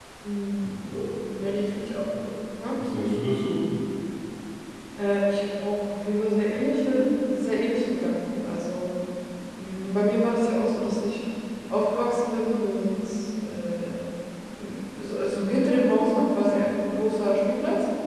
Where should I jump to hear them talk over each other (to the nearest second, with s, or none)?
none